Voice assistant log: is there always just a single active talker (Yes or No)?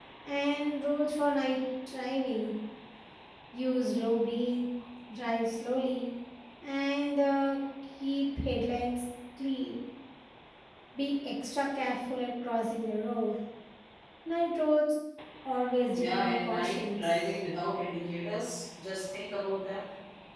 No